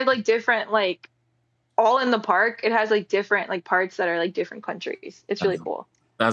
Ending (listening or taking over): taking over